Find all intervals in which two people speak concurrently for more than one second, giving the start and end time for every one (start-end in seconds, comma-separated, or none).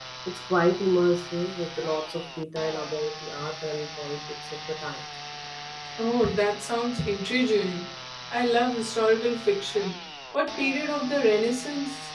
none